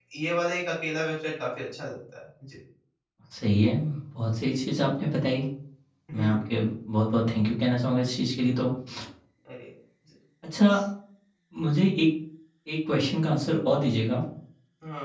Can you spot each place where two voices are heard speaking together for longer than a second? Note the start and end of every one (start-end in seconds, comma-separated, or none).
none